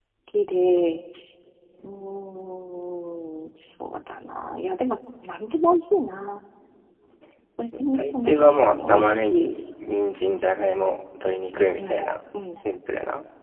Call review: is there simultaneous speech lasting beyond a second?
Yes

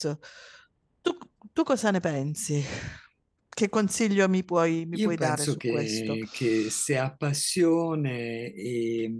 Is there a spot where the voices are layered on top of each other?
Yes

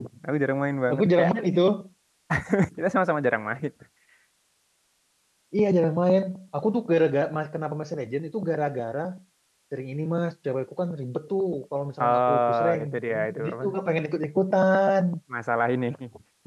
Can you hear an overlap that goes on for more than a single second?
Yes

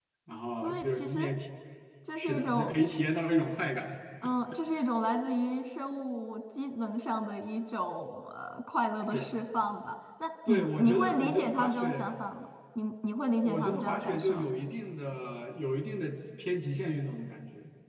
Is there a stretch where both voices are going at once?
Yes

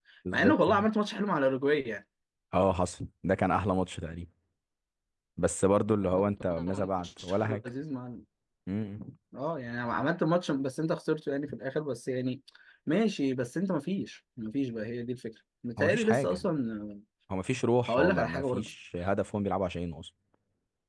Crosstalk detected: Yes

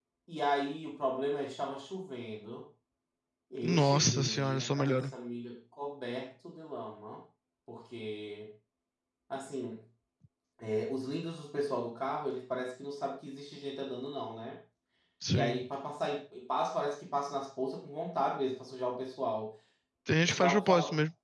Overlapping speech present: Yes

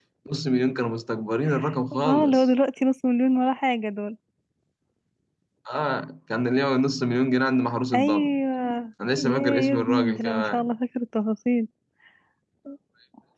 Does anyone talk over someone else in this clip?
Yes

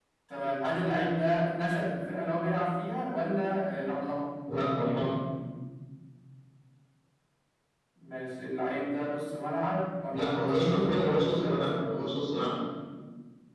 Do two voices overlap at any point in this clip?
Yes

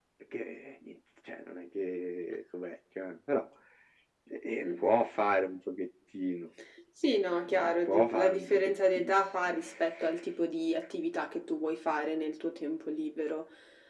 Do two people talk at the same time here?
Yes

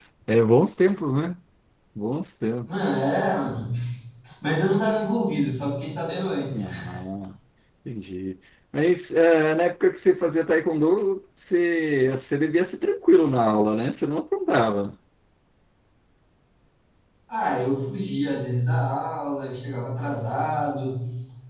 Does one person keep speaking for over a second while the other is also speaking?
No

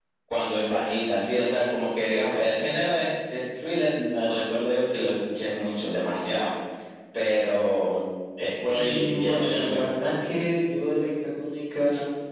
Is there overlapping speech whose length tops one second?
Yes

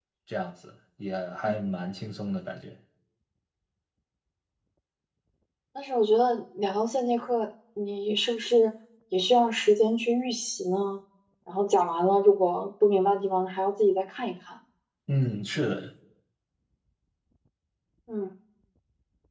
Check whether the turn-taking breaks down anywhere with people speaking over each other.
No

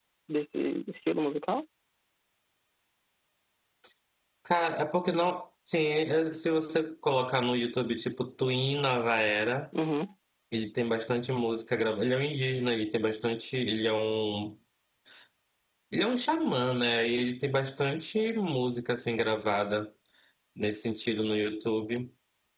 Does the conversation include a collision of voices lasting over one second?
No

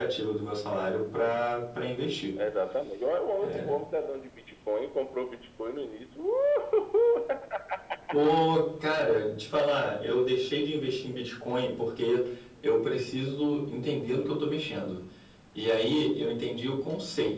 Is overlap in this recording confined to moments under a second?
Yes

